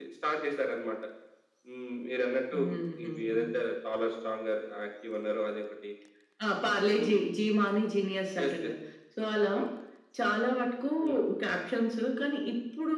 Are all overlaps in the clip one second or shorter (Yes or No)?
Yes